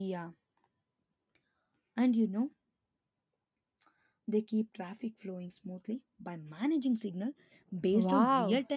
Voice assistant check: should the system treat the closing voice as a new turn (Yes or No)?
Yes